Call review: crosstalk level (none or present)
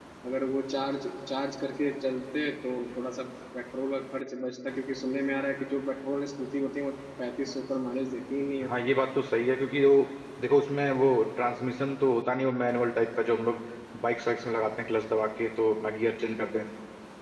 none